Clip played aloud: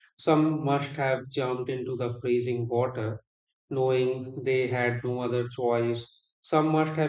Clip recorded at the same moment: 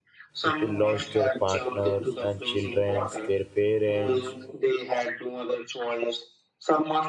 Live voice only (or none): People lost their partners and children, their parents,